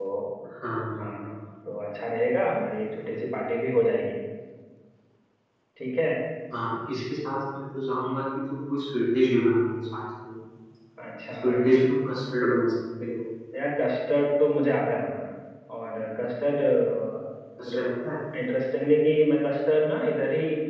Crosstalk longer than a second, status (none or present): none